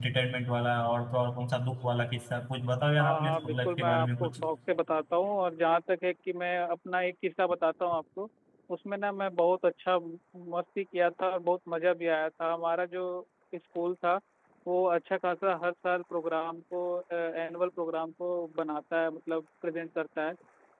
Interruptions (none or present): present